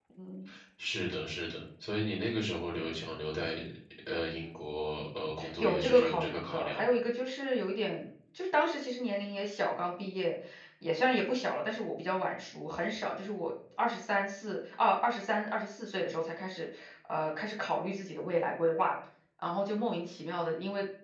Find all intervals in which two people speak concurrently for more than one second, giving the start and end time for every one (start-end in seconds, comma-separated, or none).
5.6-6.9